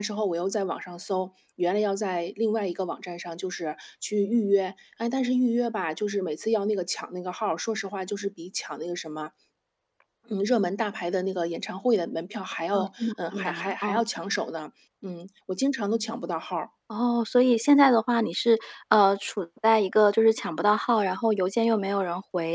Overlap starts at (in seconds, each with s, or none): 12.7 s